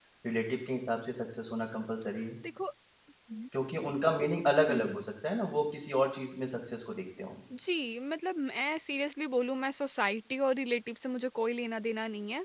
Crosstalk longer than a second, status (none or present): none